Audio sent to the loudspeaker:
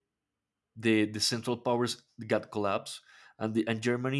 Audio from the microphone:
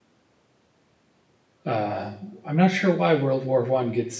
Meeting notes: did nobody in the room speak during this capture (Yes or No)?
No